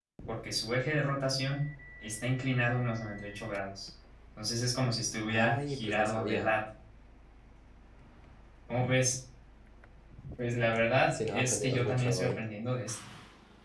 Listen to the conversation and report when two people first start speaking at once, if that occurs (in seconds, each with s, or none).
5.3 s